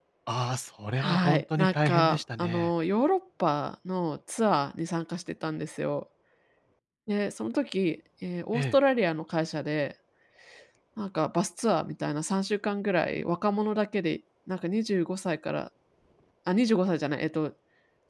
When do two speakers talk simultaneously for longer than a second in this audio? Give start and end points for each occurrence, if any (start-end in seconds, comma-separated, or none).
1.0-2.7